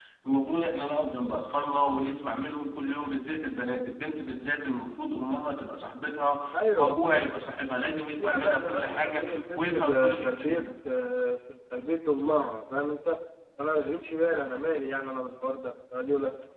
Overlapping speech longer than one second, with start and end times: 8.2-10.7

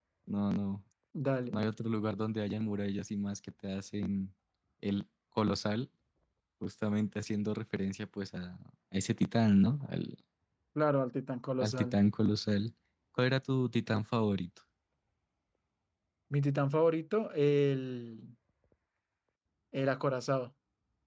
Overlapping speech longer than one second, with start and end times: none

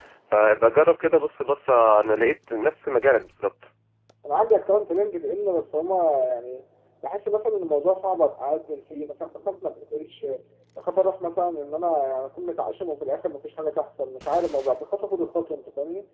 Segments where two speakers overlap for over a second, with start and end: none

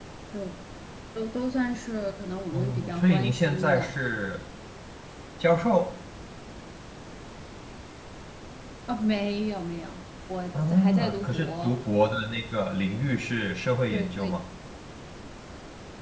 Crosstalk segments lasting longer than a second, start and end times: 2.4-3.9, 10.5-11.8

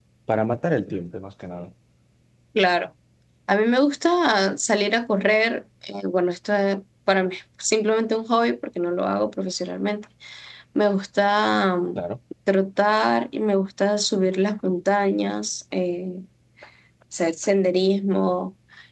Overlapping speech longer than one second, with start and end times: none

